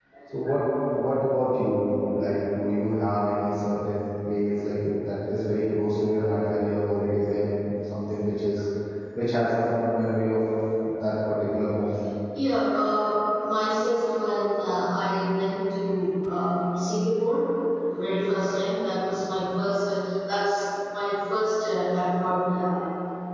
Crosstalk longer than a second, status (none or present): none